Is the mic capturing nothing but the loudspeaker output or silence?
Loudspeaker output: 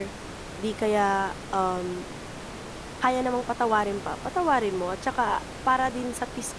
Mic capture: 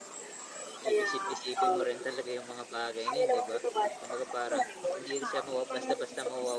No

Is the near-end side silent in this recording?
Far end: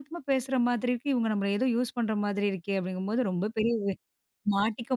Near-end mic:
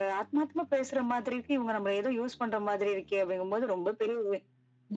Yes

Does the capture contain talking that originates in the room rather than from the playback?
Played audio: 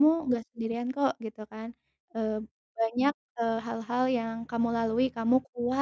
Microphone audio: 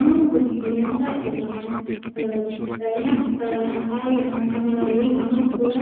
Yes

